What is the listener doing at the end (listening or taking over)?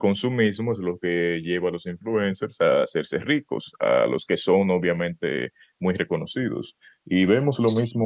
listening